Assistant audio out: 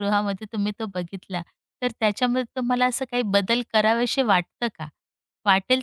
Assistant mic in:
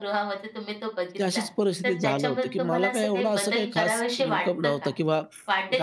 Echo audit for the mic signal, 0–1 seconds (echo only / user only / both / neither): echo only